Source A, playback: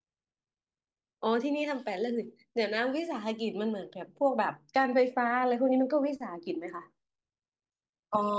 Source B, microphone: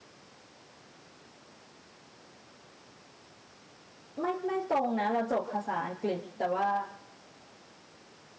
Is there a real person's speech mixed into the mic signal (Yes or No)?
Yes